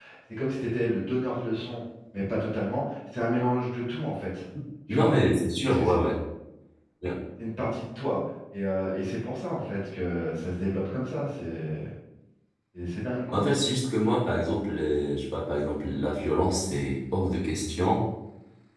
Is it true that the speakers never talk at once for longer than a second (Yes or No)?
Yes